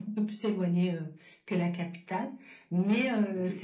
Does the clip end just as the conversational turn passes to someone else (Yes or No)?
No